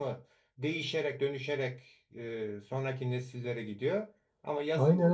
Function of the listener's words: taking over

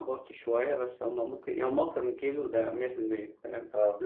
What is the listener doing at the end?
listening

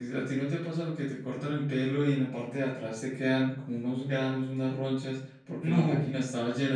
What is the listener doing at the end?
listening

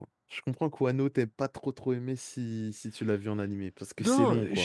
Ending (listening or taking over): taking over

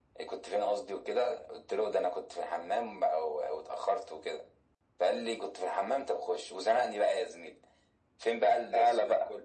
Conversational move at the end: listening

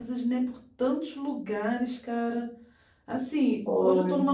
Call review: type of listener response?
listening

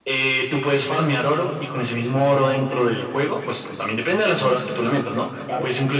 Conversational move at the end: listening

